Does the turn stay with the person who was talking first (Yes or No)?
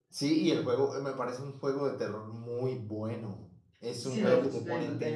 No